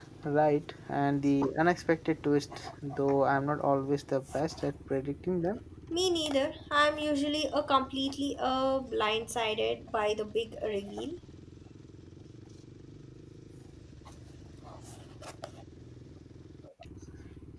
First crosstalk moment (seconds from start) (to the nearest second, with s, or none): none